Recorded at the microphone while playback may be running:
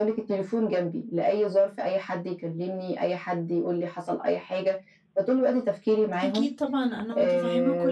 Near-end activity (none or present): present